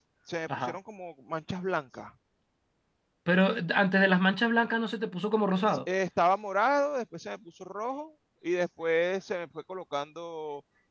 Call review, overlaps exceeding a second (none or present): none